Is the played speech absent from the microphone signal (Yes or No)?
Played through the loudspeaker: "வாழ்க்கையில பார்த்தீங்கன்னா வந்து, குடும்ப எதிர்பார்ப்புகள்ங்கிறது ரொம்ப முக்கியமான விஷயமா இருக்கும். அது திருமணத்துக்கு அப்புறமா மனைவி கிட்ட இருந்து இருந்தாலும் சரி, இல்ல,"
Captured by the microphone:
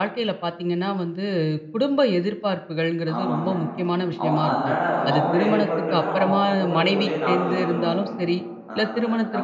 No